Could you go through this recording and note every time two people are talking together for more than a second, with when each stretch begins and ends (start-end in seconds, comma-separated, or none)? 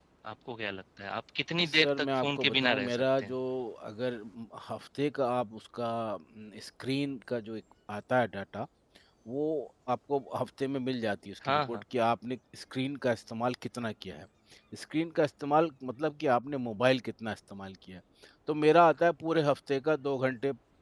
1.6-3.3